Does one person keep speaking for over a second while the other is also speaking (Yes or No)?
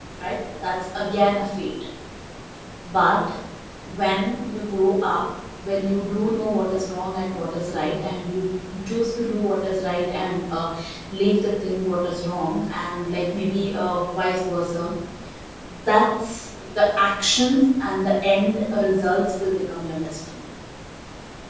No